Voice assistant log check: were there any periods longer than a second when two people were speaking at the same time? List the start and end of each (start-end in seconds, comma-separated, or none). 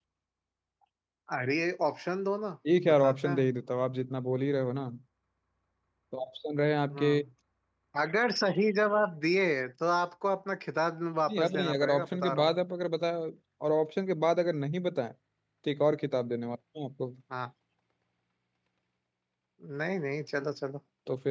11.3-12.5